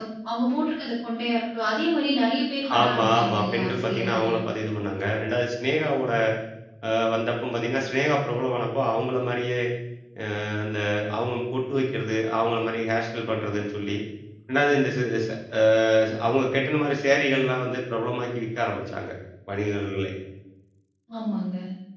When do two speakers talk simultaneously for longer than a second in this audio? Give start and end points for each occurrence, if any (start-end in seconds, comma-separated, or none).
2.8-4.5